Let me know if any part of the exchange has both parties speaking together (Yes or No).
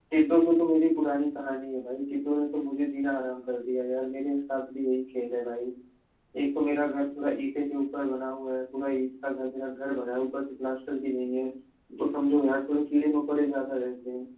No